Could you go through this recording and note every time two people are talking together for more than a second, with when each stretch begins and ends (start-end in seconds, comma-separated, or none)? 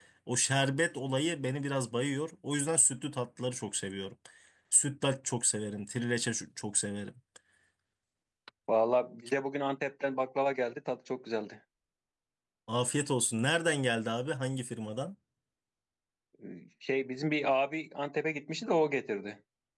none